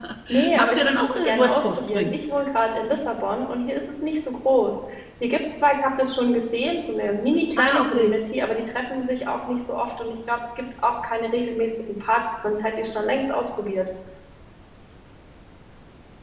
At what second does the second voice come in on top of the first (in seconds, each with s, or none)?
0.5 s